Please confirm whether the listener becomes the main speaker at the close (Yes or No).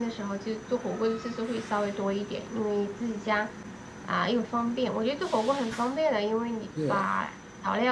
No